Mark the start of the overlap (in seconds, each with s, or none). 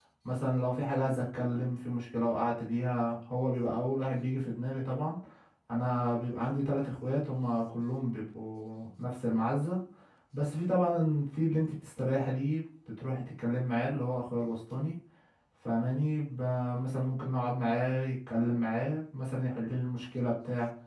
none